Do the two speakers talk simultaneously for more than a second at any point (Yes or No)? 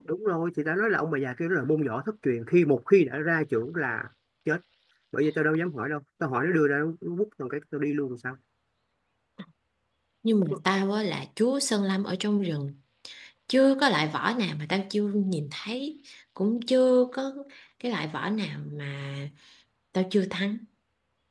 No